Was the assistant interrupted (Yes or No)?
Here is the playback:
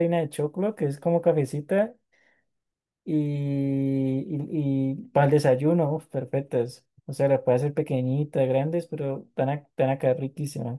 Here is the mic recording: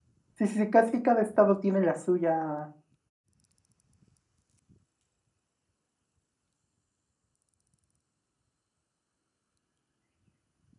Yes